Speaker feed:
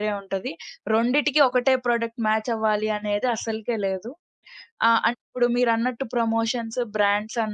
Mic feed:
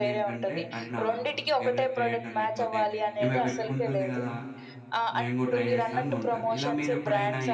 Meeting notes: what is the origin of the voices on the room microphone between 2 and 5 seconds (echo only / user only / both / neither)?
both